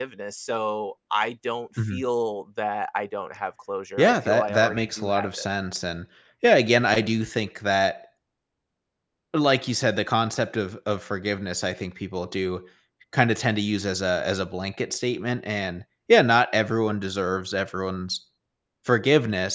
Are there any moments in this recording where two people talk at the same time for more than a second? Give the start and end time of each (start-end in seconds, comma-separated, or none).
4.0-5.4